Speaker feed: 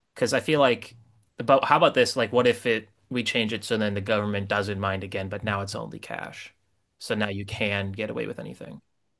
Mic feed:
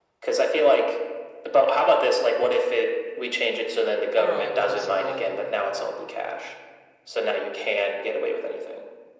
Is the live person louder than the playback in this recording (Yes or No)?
No